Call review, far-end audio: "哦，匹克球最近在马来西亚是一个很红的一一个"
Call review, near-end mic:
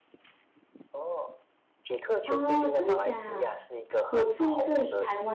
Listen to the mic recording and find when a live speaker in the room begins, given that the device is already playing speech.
2.2 s

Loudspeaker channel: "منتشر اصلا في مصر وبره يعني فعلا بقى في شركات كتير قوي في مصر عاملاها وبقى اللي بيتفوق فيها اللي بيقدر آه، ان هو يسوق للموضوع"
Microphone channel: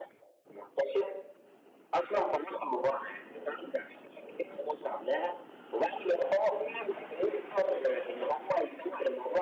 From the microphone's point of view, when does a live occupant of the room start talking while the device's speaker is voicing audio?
none

